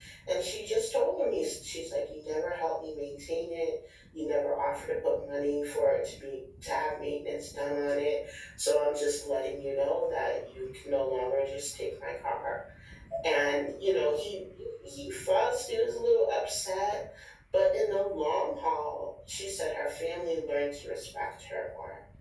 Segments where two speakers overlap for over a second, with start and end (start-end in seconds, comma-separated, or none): none